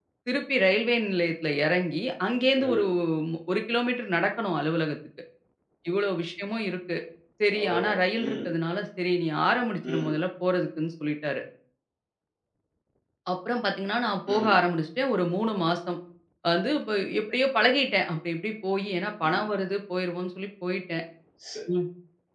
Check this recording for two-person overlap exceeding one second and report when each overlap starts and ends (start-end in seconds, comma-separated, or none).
none